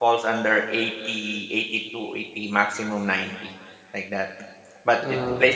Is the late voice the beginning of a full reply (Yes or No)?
No